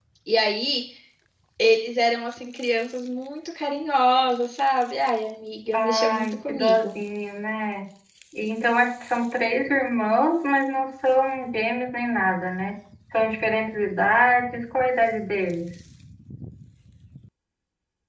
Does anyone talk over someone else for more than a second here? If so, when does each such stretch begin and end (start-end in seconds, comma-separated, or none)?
5.7-7.0